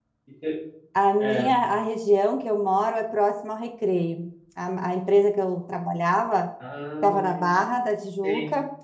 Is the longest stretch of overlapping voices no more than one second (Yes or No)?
Yes